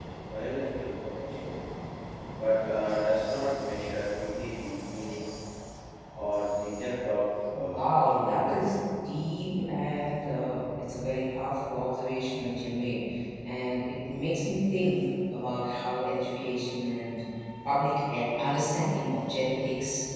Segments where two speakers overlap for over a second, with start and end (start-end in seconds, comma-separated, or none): 7.5-8.7